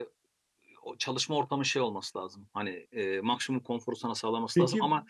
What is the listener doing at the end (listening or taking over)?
listening